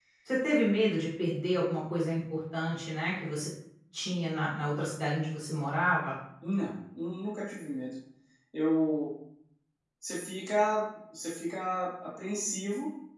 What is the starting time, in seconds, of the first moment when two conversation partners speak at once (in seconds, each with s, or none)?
none